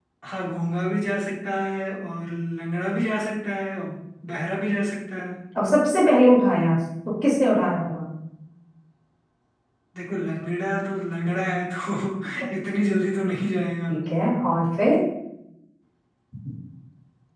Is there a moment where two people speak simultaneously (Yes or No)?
No